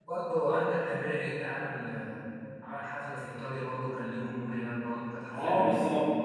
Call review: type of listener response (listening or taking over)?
taking over